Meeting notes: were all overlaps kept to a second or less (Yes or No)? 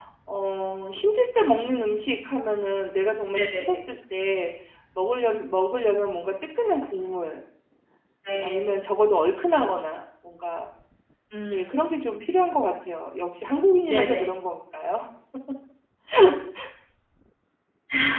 Yes